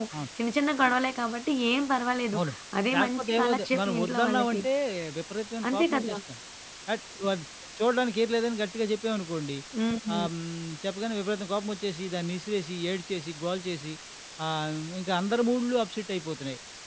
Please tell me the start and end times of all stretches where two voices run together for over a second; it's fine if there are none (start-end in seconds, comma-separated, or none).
3.0-4.6